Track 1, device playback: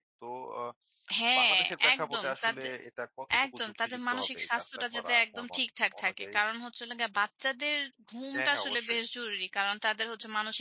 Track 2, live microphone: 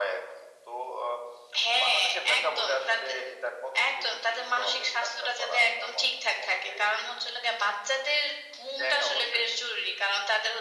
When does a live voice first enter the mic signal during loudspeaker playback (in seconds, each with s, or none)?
none